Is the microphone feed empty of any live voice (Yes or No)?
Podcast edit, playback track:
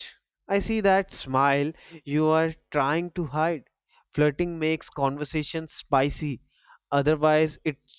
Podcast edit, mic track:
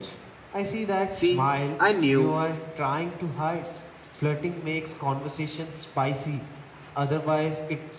No